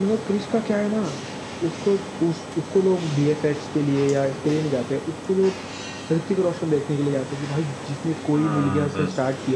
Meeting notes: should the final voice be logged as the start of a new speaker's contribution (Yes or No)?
No